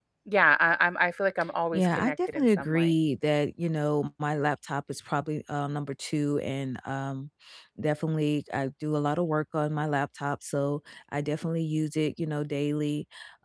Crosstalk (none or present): present